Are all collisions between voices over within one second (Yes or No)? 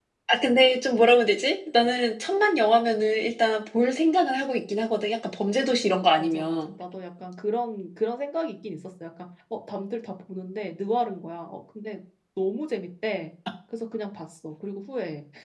Yes